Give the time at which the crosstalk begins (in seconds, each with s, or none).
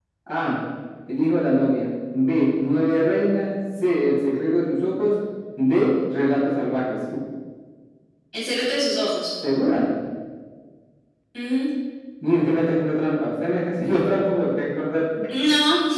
none